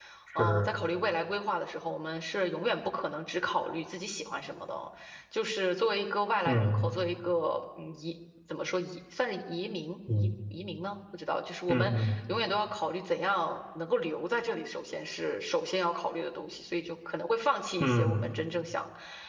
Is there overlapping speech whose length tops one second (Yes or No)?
No